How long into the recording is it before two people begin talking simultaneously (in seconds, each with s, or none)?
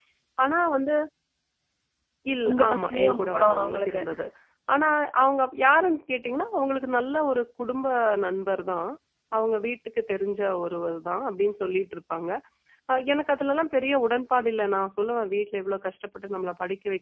2.5 s